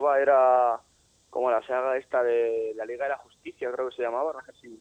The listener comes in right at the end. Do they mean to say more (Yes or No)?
Yes